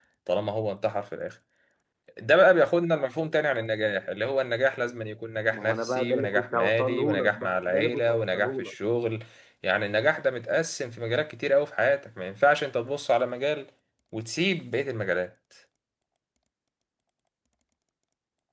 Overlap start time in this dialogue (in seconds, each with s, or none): 5.5 s